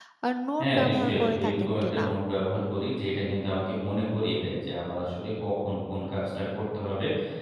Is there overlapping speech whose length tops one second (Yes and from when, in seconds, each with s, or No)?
Yes, from 0.6 s